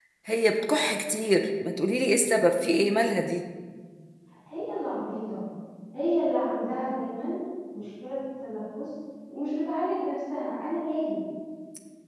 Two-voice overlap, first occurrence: none

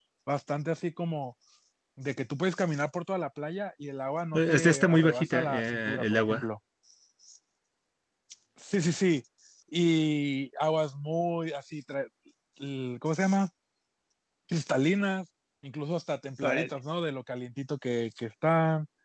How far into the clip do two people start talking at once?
4.3 s

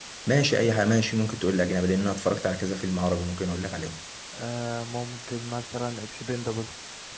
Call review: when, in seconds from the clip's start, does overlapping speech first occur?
none

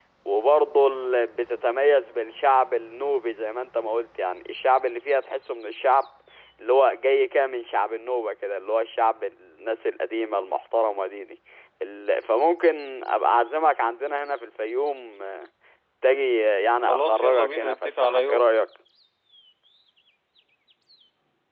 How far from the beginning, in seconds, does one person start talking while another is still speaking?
16.8 s

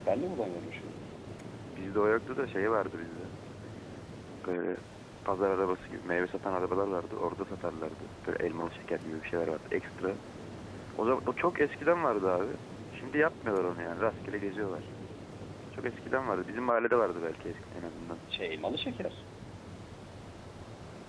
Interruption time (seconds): none

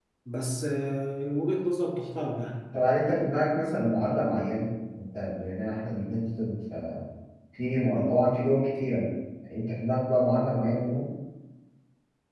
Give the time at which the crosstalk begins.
none

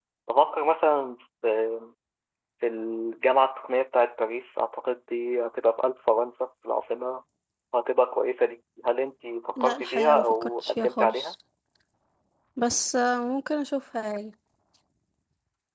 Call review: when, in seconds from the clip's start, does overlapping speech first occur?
9.6 s

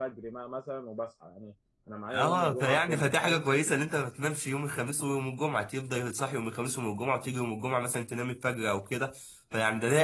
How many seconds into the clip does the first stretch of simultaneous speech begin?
2.1 s

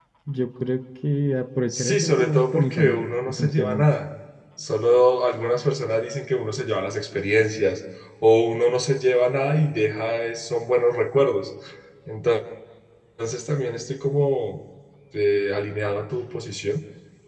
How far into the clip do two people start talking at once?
1.7 s

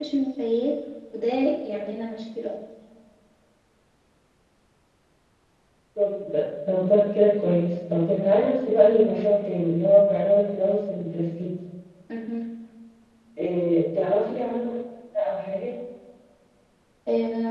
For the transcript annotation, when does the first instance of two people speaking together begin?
none

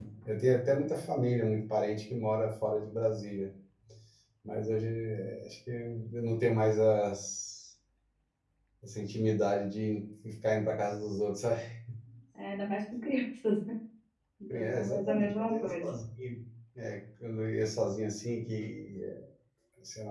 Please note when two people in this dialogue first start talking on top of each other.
14.5 s

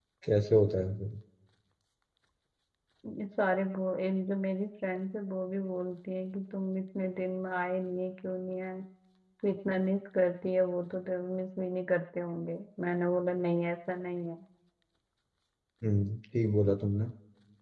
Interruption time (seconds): none

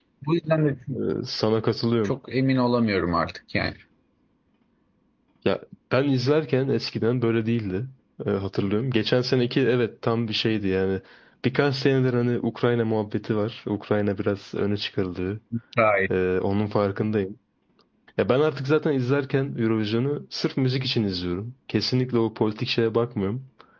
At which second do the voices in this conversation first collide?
none

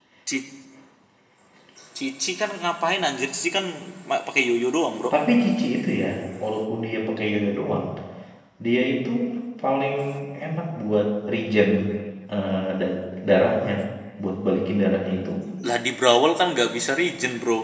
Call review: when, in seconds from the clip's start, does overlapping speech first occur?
none

